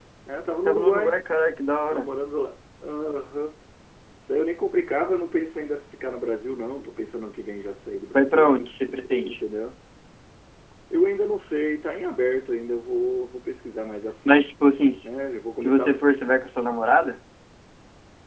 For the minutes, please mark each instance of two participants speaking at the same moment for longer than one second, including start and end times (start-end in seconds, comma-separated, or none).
none